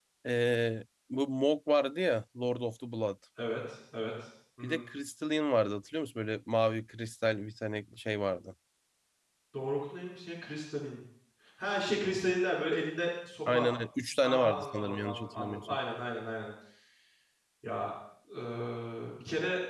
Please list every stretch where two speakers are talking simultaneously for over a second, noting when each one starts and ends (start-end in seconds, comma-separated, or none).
14.2-15.8